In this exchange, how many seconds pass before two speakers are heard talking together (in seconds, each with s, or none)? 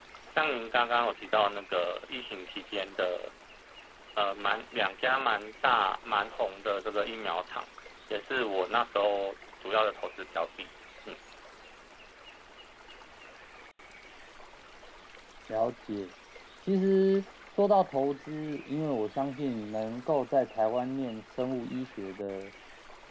none